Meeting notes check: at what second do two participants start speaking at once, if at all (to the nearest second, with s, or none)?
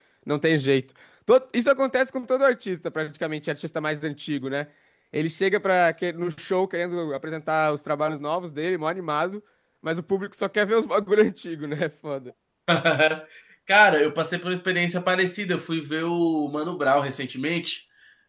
none